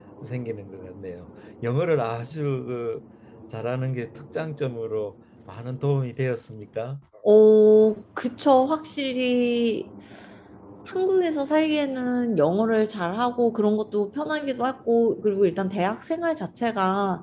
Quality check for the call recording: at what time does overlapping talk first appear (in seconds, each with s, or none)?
none